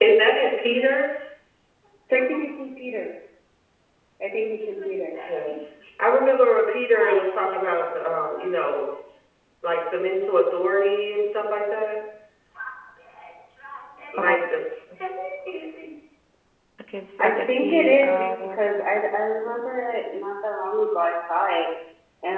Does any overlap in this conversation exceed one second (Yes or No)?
Yes